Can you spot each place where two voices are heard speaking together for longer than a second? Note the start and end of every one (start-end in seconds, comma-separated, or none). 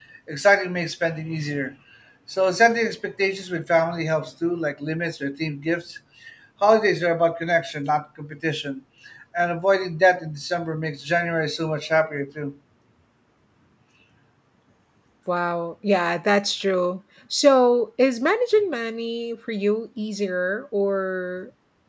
none